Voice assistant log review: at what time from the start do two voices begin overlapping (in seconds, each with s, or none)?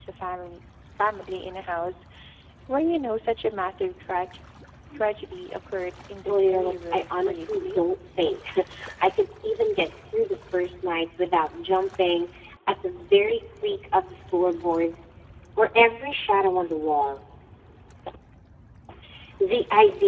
6.3 s